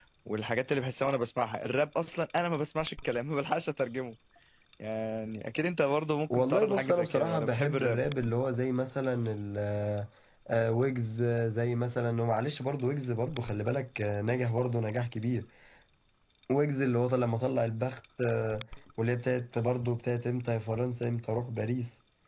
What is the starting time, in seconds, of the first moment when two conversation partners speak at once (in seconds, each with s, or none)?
6.3 s